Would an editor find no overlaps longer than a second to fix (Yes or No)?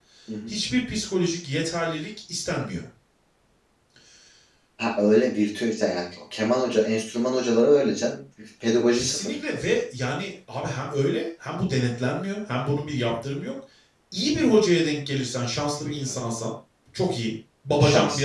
Yes